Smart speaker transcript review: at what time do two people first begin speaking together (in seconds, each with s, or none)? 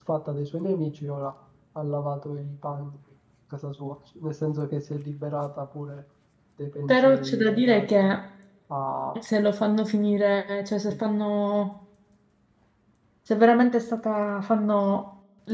6.9 s